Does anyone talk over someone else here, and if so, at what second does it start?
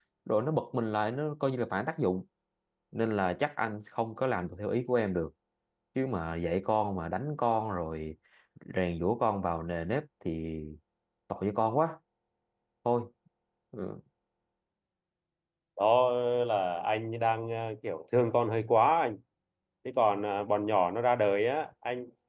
none

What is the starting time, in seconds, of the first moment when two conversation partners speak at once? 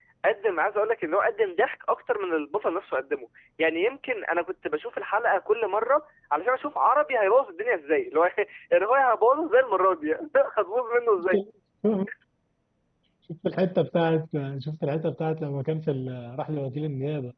none

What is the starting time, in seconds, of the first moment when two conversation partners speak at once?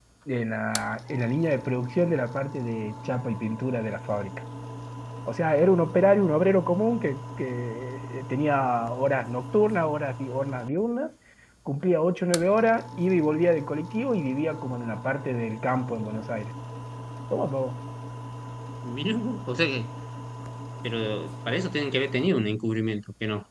none

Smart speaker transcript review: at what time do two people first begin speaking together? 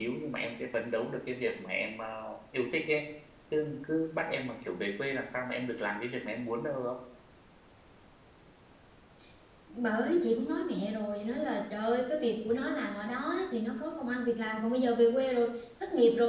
none

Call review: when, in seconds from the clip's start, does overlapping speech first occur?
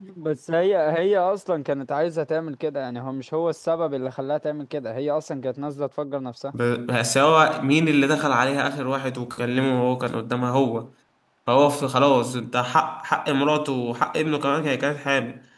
none

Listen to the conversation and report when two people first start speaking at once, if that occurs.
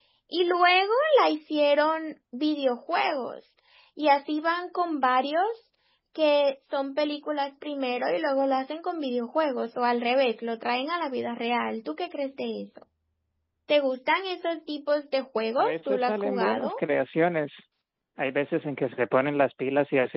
16 s

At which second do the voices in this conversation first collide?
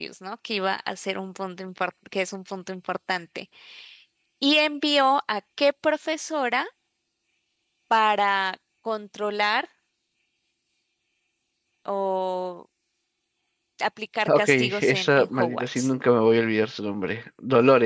14 s

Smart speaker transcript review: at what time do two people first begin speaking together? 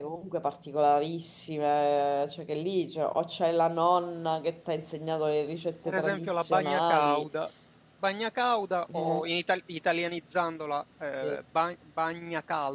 6 s

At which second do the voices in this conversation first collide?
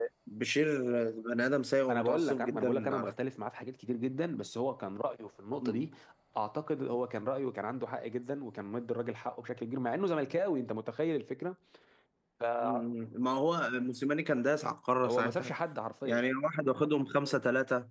2 s

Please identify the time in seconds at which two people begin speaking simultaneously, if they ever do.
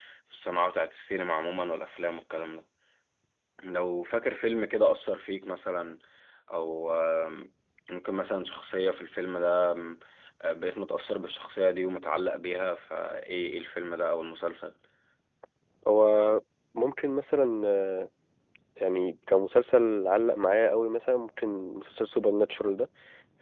none

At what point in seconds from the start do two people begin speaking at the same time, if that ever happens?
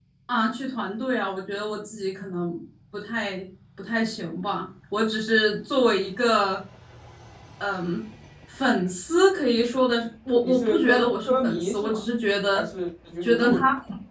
10 s

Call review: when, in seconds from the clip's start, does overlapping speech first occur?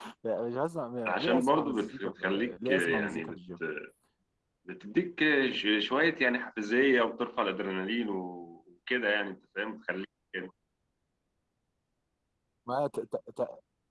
1 s

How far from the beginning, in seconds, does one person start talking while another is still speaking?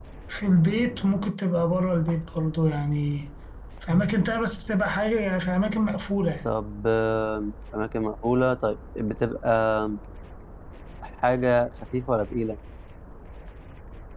none

